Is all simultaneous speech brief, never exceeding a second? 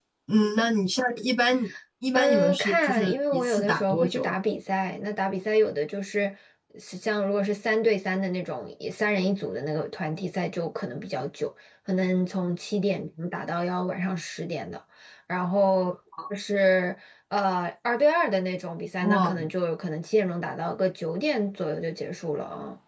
No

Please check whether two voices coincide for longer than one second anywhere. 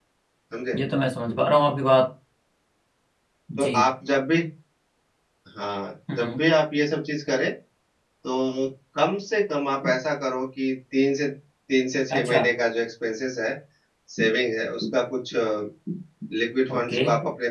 No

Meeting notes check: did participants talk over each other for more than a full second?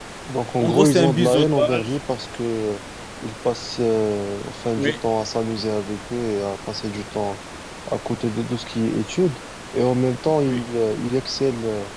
Yes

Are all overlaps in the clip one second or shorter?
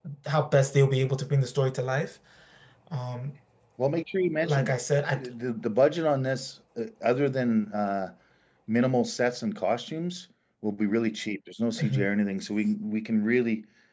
Yes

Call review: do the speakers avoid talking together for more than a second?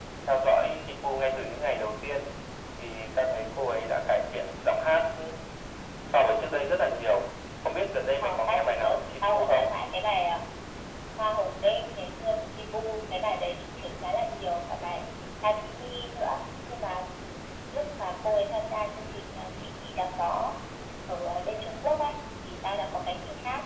No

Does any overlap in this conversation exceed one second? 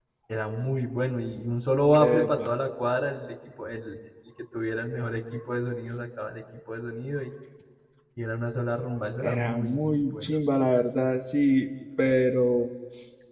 Yes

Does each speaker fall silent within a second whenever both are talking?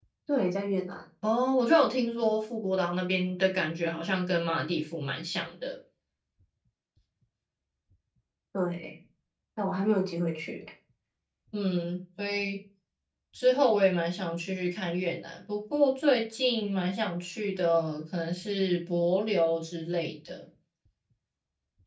Yes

